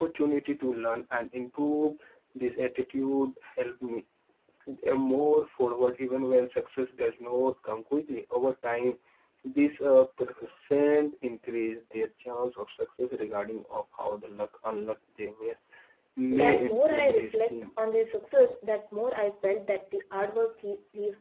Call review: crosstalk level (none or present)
present